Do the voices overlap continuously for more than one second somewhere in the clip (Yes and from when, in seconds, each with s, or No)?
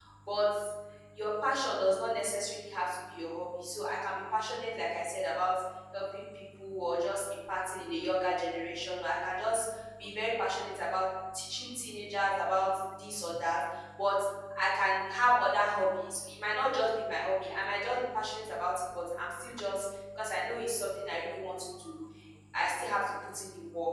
No